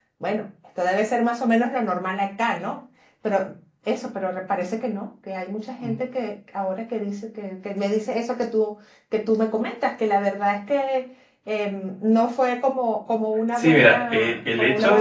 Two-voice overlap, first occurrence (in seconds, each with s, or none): 13.6 s